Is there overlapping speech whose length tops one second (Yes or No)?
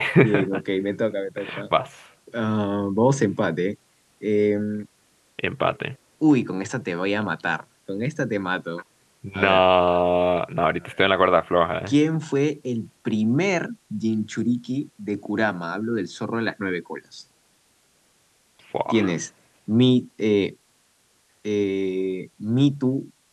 No